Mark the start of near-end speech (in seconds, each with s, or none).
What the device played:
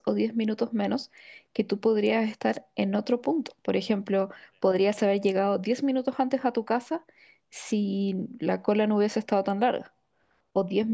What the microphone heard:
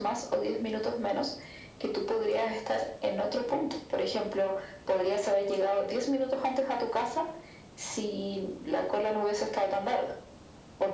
none